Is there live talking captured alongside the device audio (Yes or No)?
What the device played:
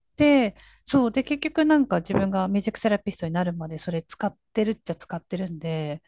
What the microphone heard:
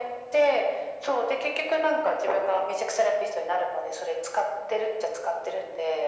No